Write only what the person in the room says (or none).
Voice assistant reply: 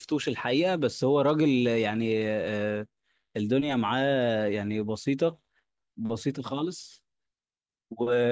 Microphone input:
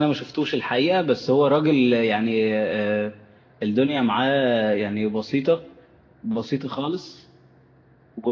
none